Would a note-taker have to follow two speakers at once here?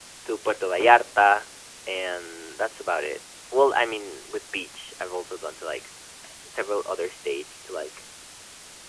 No

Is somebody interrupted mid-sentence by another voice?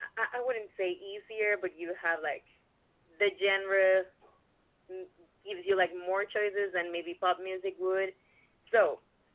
No

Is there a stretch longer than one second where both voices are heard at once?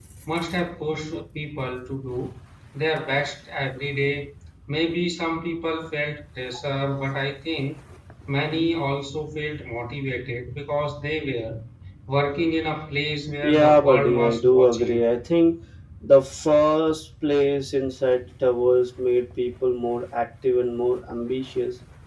Yes, from 13.4 s

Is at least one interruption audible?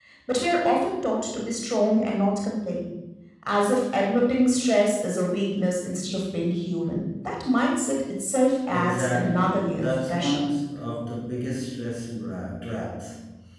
Yes, from 8.7 s

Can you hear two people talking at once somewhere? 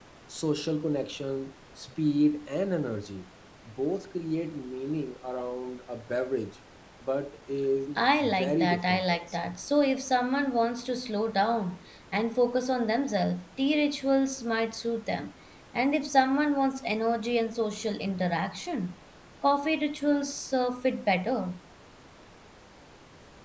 Yes, from 8.0 s

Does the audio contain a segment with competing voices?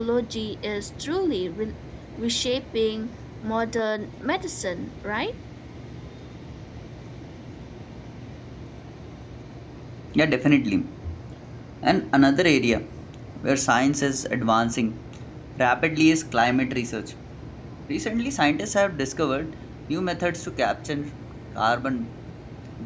No

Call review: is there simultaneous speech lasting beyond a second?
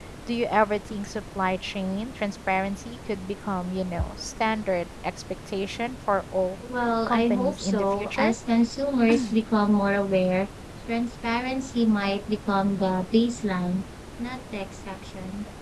Yes, from 7.1 s

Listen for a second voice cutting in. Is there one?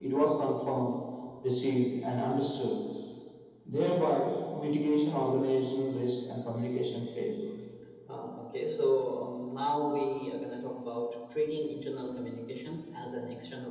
No

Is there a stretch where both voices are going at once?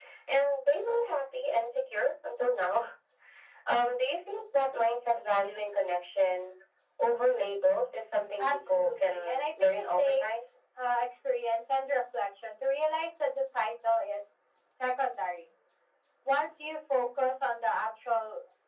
Yes, from 8.4 s

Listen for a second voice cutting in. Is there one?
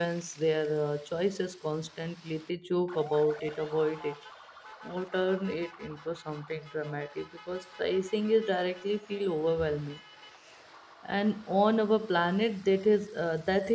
No

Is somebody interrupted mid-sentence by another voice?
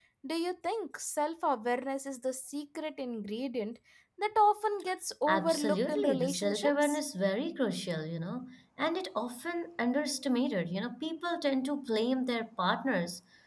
Yes, from 5.3 s

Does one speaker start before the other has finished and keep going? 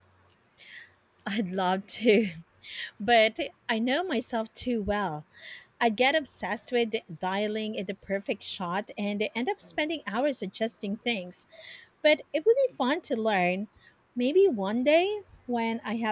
No

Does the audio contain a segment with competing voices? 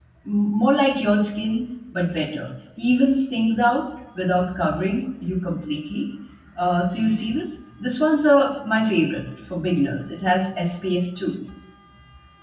No

